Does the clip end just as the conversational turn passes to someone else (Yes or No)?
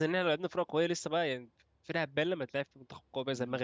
Yes